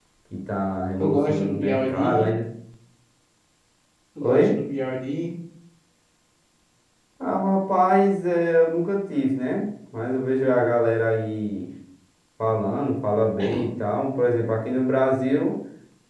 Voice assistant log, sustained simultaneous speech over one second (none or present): present